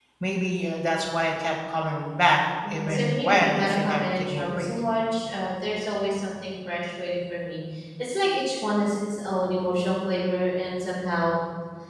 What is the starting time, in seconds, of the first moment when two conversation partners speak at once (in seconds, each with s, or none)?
2.6 s